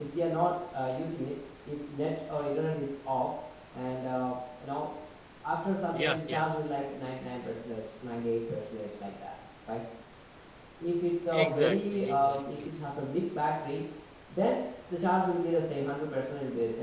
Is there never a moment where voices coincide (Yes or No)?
No